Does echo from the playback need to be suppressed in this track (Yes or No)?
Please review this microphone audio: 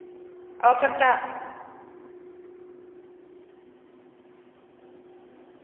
No